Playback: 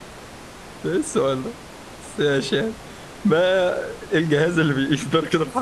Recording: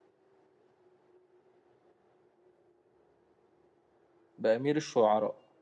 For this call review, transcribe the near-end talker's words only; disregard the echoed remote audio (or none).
بأمير الشعراء